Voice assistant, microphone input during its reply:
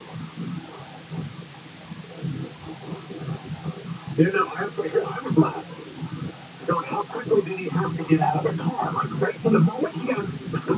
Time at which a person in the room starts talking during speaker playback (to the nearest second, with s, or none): none